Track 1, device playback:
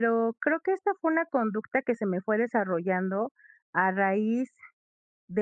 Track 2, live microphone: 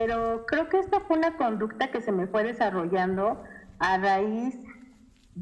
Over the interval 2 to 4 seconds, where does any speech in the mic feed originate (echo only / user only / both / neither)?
echo only